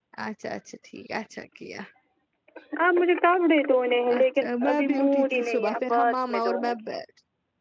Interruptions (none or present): present